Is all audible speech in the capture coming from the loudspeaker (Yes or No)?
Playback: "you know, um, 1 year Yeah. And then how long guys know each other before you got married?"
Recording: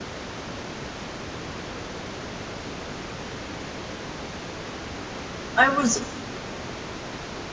No